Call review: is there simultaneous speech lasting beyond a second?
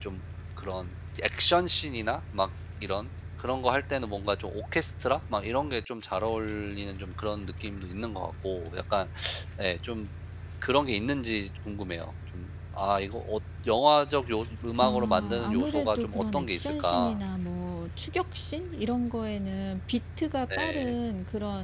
Yes, from 14.8 s

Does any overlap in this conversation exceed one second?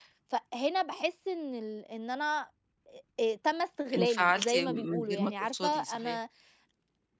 Yes, from 4.0 s

